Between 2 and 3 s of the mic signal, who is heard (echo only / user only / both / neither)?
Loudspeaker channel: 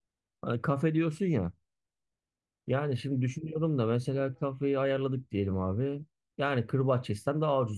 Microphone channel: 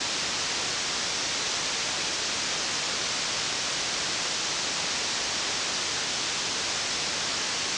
neither